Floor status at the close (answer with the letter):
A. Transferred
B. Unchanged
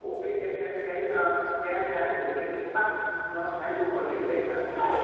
A